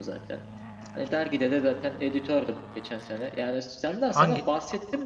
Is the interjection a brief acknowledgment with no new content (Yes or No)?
Yes